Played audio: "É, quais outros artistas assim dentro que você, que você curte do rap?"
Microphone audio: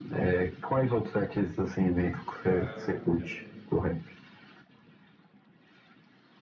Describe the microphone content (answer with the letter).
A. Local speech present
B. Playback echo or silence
A